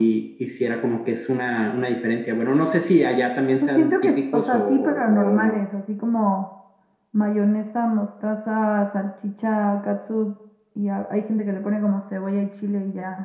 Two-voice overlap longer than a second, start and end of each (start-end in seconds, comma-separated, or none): 3.6-5.6